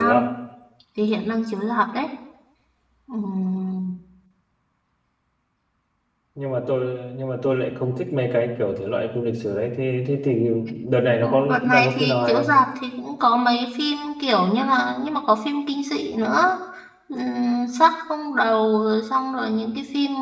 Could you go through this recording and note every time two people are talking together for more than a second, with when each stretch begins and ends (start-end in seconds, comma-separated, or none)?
11.2-12.5